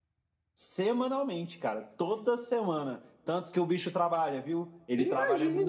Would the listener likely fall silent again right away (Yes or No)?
No